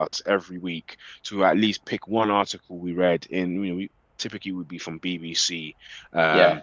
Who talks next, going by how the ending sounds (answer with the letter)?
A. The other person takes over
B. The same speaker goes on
B